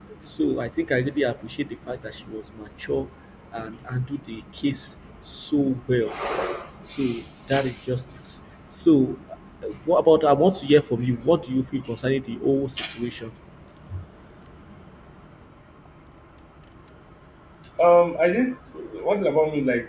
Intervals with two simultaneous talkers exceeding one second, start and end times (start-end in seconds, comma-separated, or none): none